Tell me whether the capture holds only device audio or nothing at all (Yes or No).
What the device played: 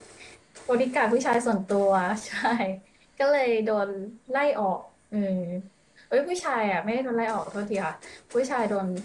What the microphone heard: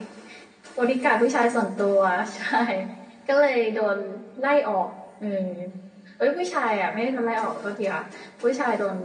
Yes